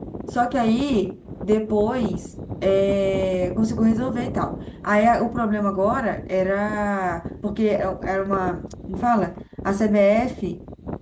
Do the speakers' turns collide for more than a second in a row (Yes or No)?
No